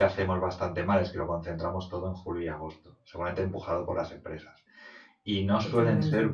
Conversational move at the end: listening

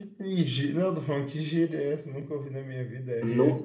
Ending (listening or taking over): taking over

